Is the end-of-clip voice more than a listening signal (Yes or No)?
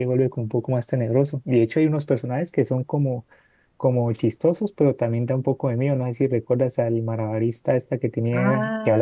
Yes